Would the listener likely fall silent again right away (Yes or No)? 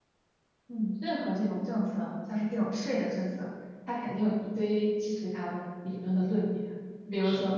Yes